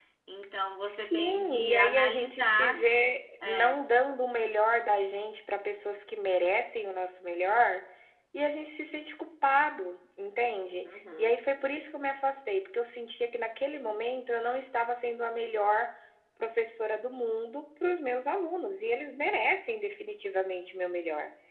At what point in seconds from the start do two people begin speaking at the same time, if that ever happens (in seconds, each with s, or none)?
0.8 s